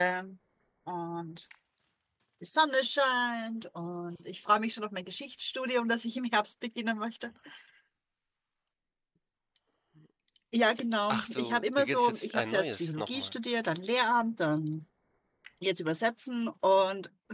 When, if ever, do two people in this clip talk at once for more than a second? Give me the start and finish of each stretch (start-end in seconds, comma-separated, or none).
11.1-13.3